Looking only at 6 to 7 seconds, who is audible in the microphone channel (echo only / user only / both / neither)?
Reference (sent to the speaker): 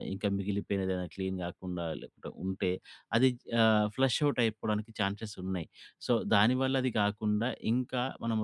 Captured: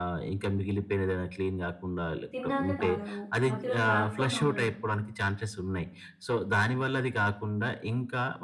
echo only